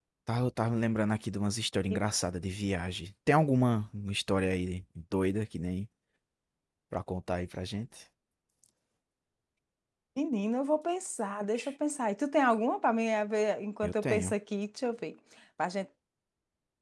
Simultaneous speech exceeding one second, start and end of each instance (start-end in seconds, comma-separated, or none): none